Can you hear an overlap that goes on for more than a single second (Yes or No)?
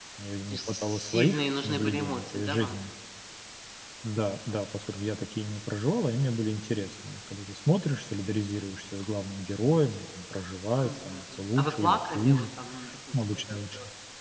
Yes